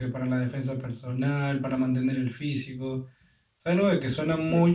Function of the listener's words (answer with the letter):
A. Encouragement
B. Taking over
A